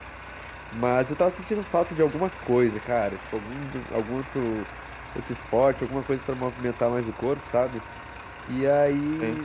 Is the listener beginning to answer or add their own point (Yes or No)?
No